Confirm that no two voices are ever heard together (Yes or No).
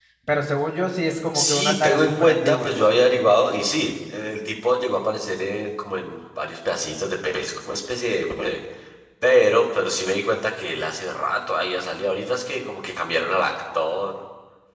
No